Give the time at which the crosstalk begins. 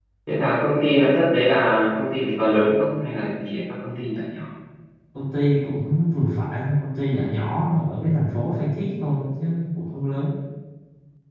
none

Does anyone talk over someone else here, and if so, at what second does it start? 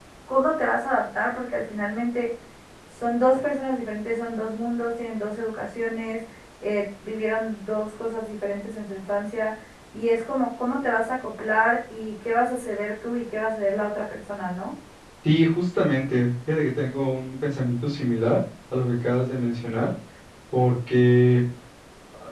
none

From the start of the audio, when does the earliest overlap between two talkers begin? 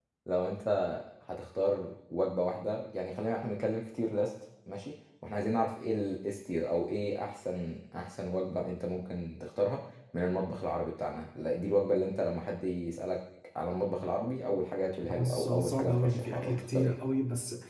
15 s

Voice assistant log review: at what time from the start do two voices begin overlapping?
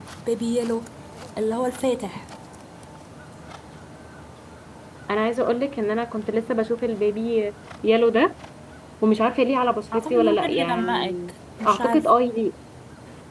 10 s

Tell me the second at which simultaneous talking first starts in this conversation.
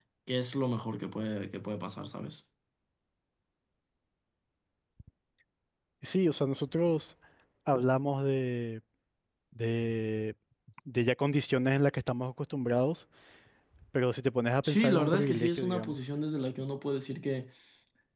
15 s

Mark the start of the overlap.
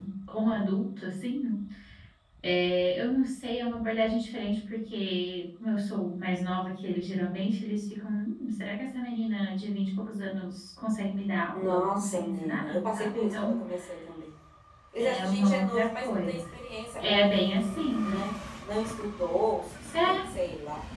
12 s

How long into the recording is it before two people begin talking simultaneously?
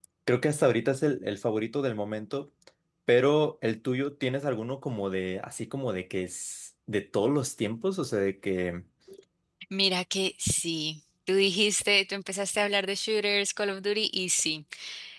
none

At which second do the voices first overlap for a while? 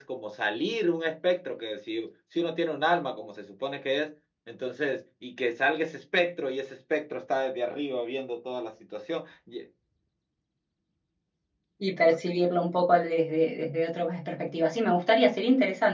none

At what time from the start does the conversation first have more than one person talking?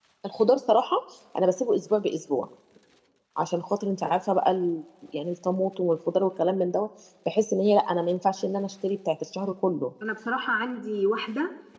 none

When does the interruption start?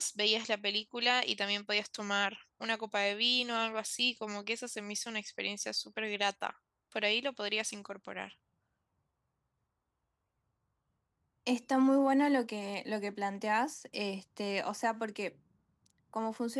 none

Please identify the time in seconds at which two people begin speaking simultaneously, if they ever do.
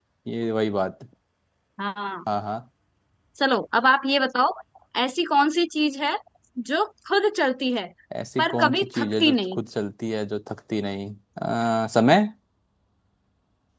8 s

